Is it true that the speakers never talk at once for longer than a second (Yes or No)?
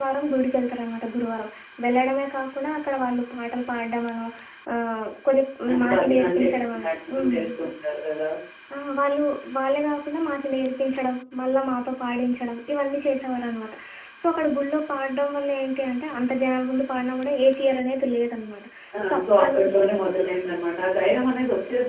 No